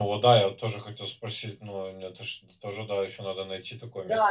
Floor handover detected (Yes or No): Yes